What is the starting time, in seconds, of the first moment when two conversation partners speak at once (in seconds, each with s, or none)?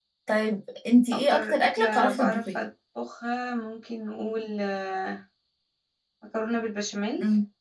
1.1 s